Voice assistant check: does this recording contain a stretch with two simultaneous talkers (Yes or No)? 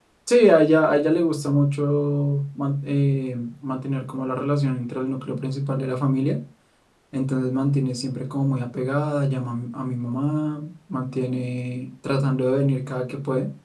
No